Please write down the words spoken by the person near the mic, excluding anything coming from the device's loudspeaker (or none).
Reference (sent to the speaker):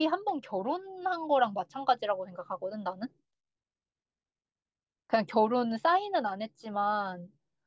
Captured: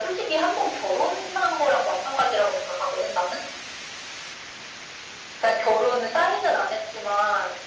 none